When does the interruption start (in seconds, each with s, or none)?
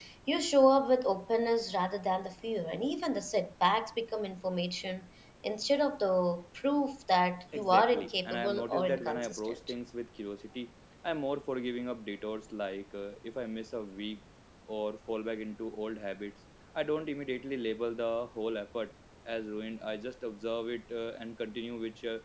7.5 s